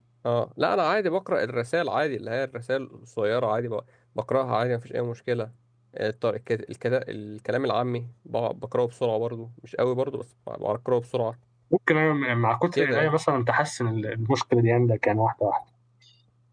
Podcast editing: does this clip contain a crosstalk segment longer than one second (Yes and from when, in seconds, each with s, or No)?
No